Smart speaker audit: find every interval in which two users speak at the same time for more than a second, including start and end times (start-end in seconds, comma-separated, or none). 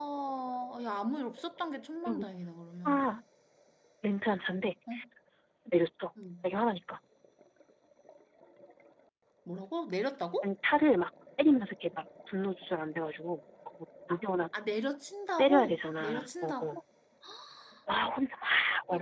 15.4-16.8